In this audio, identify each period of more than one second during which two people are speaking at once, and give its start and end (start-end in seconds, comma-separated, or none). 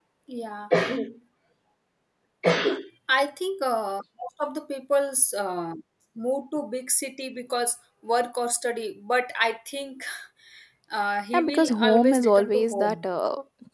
11.3-13.0